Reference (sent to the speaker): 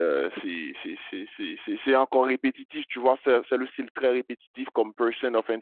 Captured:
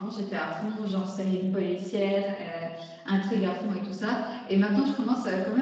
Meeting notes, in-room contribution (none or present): present